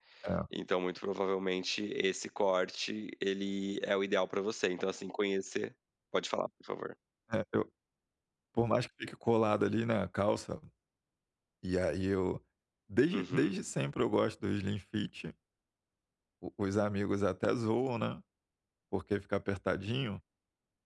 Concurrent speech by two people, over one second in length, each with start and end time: none

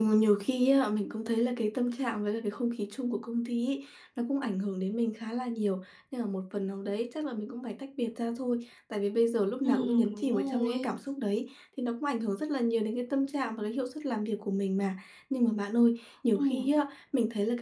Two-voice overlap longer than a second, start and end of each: 9.7-10.9

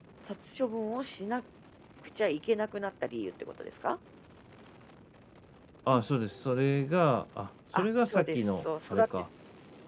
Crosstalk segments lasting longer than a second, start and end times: 7.7-9.1

